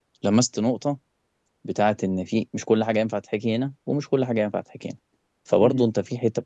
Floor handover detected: No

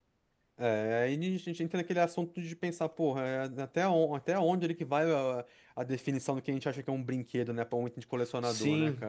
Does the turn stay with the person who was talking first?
No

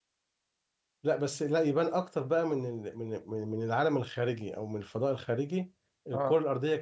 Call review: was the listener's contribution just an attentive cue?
Yes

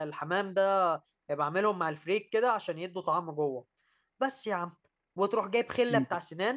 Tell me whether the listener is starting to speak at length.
No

